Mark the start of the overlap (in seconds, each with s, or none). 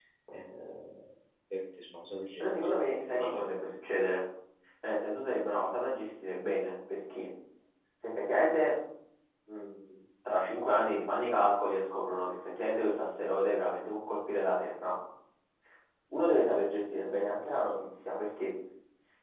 2.4 s